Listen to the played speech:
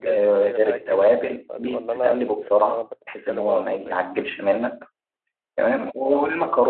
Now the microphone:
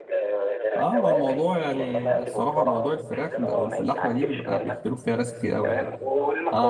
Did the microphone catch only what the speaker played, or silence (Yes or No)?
No